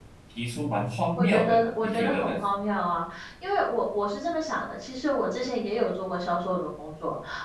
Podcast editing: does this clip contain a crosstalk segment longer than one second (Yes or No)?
Yes